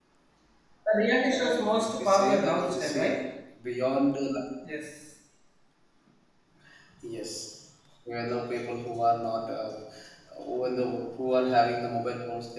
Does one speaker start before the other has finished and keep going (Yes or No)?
Yes